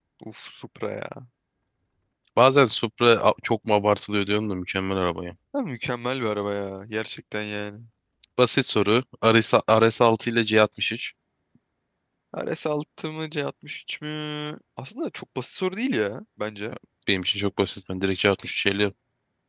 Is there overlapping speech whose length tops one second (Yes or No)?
No